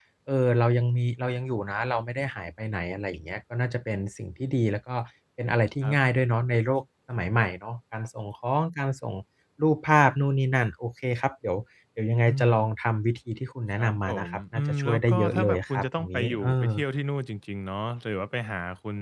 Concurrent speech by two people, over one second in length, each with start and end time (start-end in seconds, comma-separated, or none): 13.8-16.7